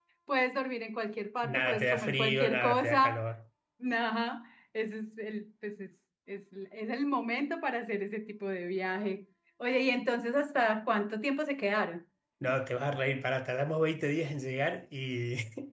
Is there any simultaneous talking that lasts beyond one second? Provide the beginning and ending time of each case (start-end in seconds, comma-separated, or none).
1.4-3.2